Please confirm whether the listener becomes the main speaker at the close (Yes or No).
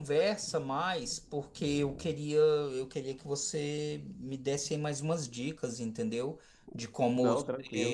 No